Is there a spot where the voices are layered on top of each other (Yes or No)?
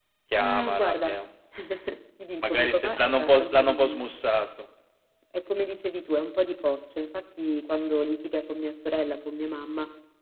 Yes